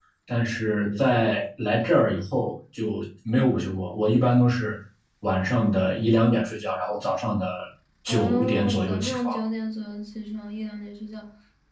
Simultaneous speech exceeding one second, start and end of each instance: 8.1-9.3

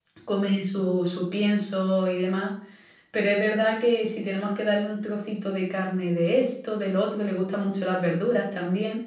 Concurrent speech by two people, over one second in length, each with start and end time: none

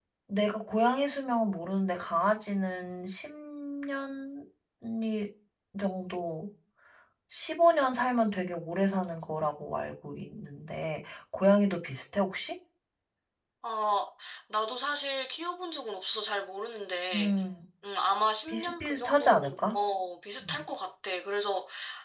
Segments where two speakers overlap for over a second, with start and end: 18.5-19.8

